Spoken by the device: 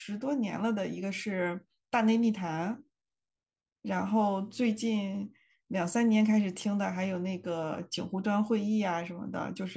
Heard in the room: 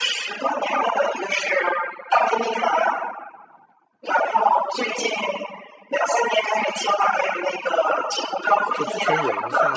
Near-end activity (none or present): present